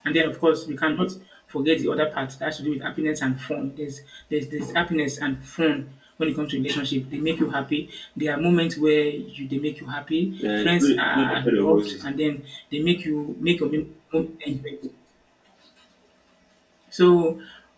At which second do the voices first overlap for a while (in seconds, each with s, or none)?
10.4 s